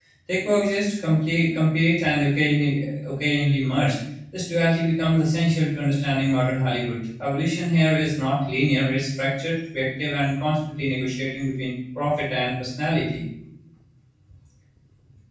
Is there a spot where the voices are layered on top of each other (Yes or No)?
No